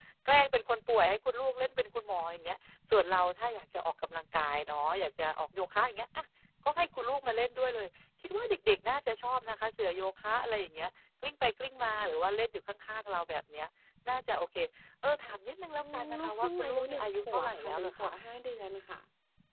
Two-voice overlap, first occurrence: 15.8 s

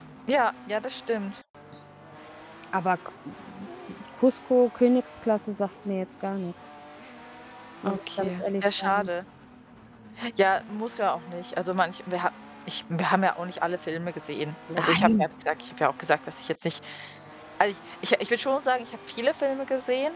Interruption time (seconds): 7.9 s

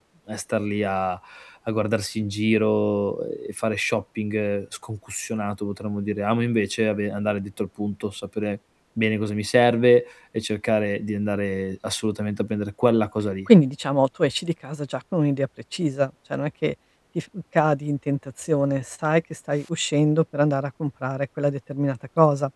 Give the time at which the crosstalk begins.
none

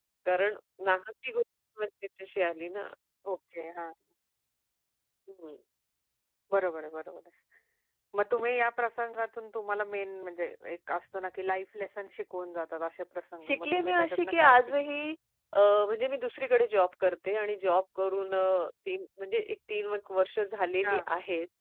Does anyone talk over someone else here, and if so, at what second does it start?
13.4 s

